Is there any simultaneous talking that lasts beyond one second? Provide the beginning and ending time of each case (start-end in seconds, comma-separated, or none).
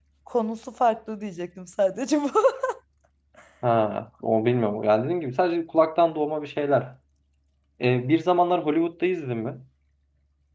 none